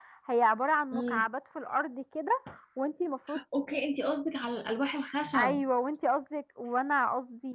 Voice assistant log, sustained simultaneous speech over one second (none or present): none